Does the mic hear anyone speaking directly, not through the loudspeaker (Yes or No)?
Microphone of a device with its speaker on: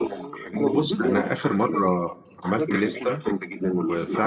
Yes